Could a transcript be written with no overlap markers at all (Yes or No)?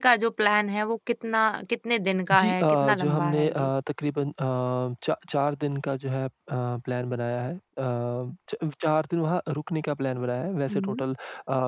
No